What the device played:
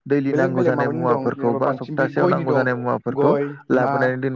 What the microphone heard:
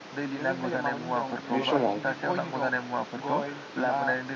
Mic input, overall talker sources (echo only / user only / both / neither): both